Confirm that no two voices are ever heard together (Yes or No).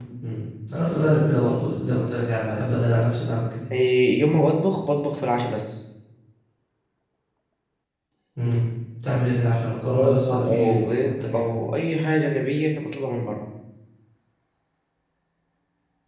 No